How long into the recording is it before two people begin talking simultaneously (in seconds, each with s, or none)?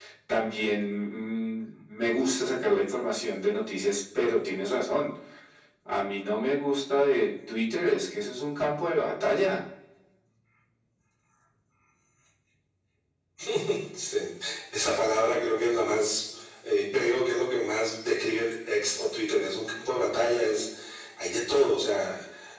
none